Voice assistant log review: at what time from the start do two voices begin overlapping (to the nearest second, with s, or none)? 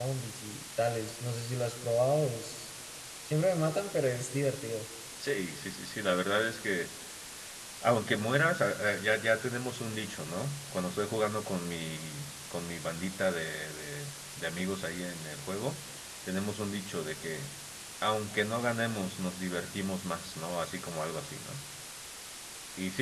none